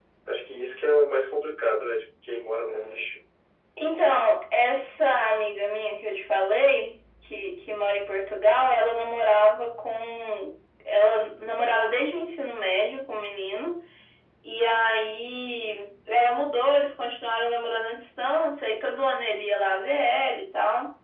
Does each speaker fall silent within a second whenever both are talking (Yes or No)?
Yes